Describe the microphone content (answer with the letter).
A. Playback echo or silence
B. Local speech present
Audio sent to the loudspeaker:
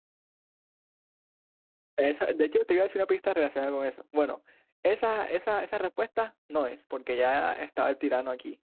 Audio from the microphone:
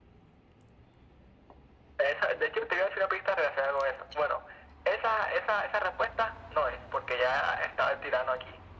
A